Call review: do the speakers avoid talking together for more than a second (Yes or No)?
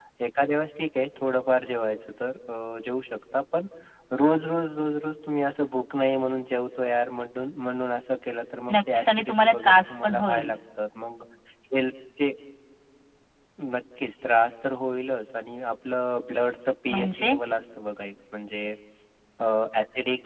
No